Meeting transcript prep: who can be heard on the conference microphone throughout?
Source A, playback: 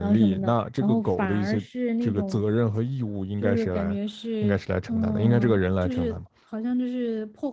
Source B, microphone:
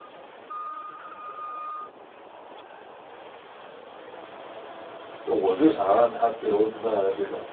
user only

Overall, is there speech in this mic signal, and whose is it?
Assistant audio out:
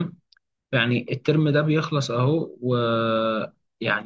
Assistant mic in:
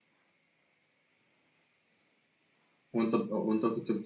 user only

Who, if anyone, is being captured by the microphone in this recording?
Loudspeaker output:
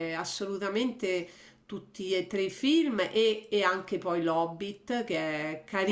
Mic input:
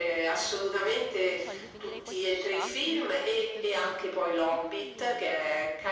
both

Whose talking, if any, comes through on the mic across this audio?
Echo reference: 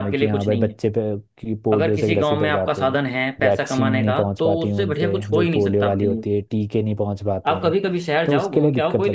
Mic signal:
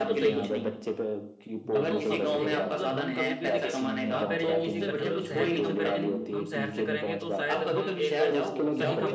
both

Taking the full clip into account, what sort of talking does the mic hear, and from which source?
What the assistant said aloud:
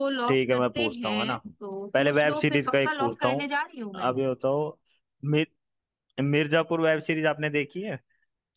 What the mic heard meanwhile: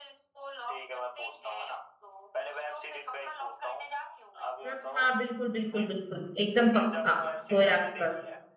both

